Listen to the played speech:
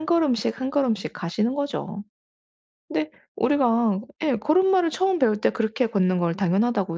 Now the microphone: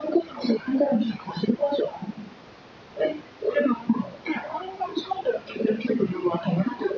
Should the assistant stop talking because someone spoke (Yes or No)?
No